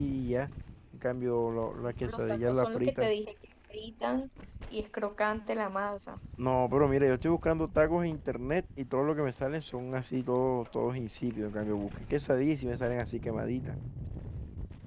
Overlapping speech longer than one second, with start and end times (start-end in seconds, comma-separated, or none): 1.8-3.1